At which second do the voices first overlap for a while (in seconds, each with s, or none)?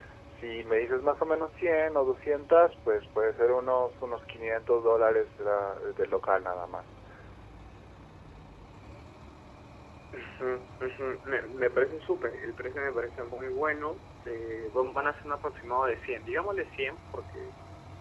none